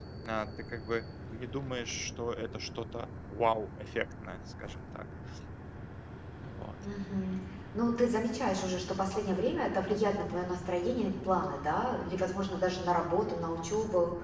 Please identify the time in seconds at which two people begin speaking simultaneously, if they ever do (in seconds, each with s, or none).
none